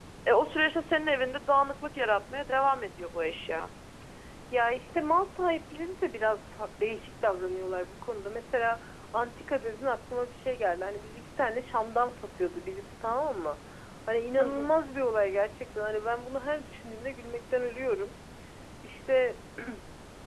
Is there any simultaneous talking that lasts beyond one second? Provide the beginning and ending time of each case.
none

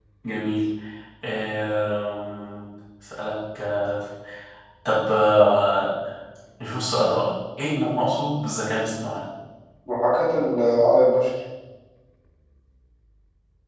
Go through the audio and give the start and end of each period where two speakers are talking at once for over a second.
none

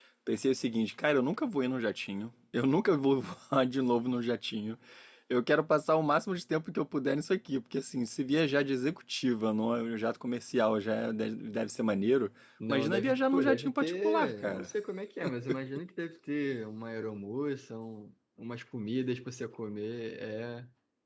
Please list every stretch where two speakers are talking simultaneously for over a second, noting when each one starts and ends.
12.7-14.7

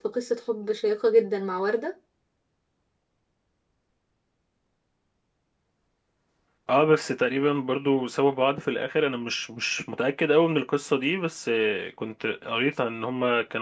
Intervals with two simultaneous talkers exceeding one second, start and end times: none

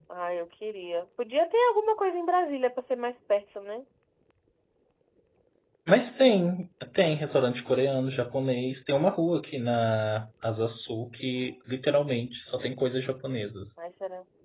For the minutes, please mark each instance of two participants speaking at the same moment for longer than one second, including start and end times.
none

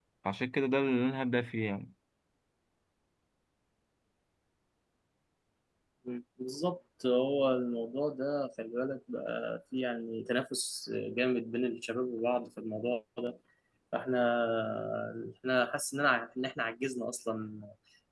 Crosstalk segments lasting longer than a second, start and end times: none

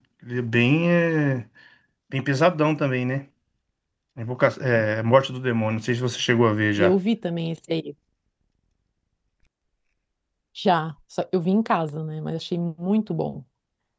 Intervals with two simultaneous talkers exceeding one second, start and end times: none

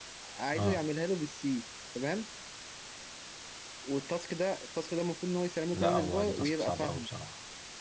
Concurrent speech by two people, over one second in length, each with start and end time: 5.7-7.1

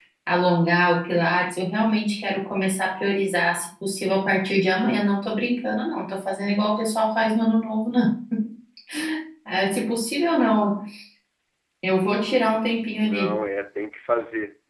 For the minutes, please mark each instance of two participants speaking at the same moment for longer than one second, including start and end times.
none

